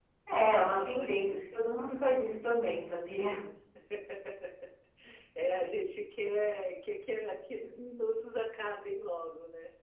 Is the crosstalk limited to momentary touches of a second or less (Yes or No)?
No